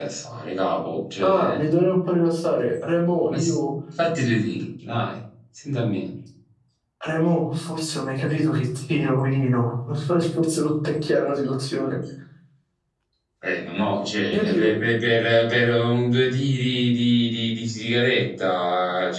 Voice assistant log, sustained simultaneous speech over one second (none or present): none